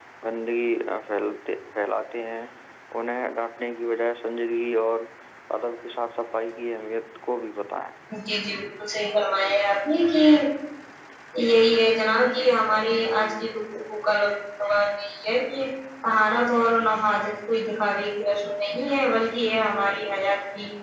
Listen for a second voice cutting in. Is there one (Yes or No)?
No